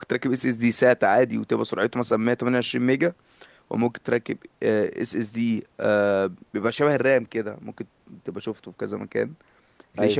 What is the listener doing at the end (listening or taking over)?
listening